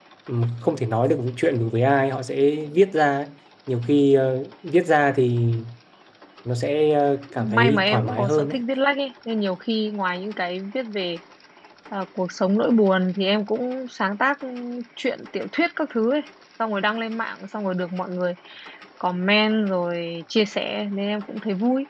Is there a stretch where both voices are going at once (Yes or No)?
Yes